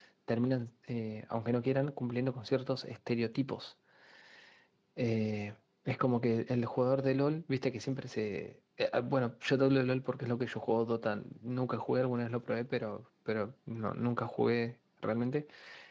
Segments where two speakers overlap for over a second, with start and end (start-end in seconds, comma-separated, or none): none